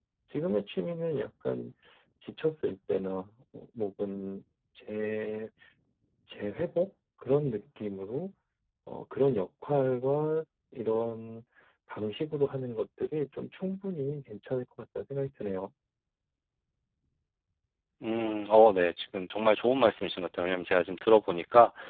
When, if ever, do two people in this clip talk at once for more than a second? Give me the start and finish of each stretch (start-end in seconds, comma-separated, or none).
none